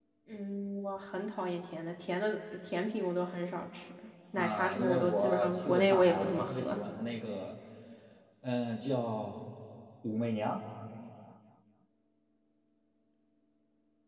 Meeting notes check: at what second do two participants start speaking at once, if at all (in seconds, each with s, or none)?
4.3 s